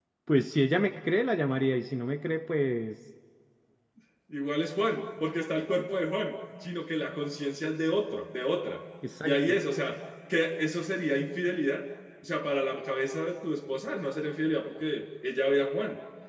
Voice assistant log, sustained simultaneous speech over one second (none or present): none